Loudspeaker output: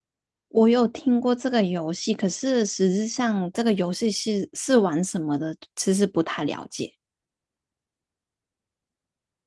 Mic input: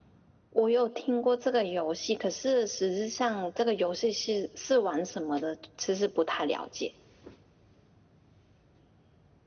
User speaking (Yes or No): No